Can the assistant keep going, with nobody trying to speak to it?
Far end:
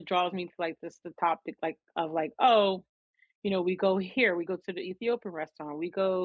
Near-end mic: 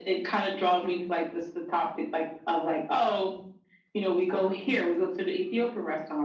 Yes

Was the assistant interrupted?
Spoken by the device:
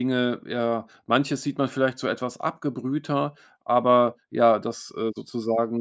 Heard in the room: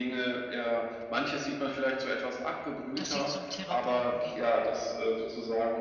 Yes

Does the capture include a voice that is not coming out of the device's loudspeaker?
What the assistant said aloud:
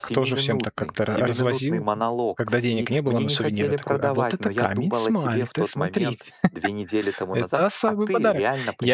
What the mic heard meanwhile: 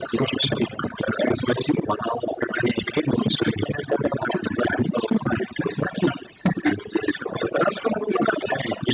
No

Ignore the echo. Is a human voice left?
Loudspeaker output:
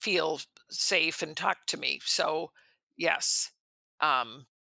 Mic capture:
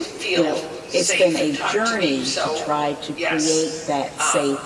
Yes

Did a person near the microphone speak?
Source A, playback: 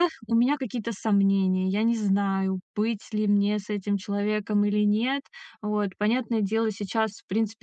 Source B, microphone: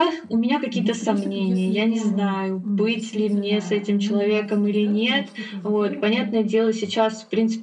Yes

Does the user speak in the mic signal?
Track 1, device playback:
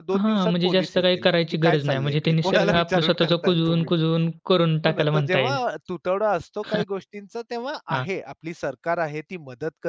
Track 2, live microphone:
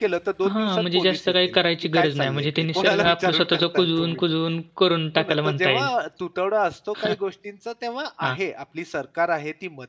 No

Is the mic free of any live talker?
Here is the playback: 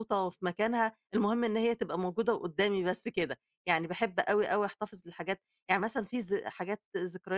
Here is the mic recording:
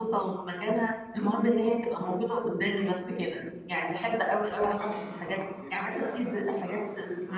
No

